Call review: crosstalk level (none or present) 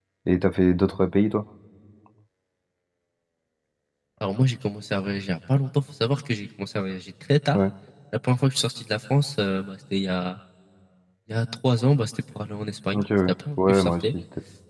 present